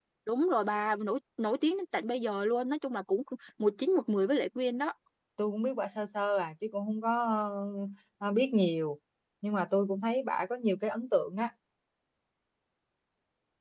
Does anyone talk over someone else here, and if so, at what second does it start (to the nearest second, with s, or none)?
none